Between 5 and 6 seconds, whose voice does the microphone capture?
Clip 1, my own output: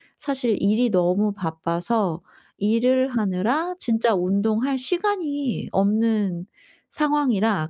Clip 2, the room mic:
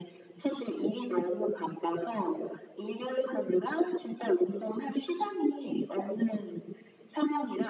echo only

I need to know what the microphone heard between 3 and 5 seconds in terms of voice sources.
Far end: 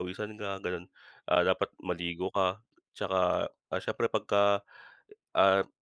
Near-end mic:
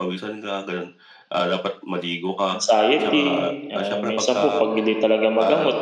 both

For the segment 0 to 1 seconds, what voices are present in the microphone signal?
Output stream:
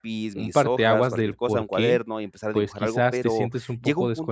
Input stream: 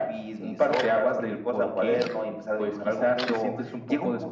echo only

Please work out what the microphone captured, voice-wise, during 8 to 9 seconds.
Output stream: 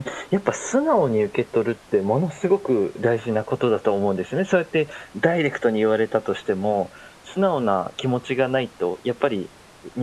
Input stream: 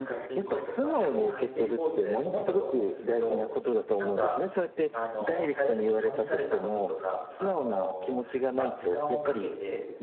both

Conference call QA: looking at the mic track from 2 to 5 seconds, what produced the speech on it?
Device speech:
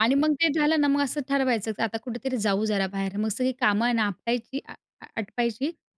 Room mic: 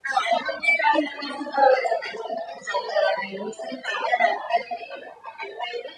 echo only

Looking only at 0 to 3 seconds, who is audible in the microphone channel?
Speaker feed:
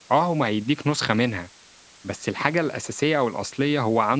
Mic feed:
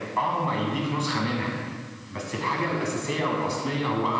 echo only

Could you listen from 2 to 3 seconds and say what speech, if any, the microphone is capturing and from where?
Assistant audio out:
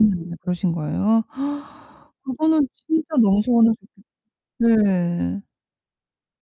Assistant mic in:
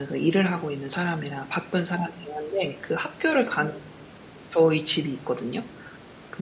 user only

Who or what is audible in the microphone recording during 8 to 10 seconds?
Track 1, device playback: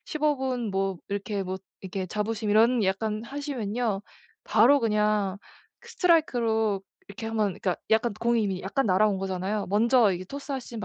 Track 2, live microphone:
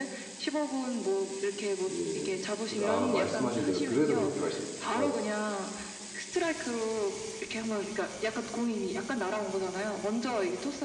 echo only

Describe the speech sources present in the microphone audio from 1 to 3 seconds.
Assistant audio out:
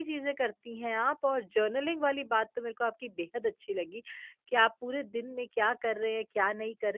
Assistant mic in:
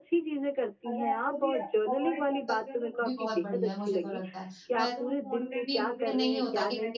both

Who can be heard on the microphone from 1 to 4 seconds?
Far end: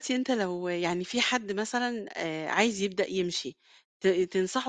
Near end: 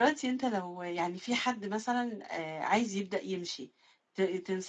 echo only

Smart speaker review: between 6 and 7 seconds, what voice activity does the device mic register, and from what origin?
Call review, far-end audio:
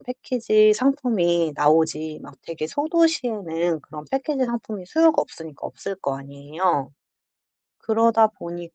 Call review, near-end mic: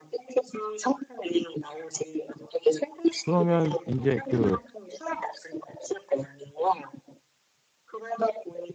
echo only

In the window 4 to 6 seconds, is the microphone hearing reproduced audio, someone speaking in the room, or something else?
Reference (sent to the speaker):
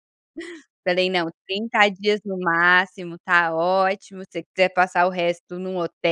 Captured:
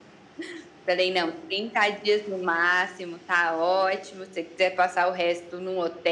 echo only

